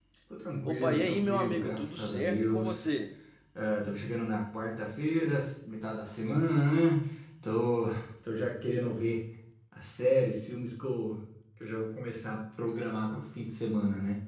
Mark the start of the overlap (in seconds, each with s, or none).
0.6 s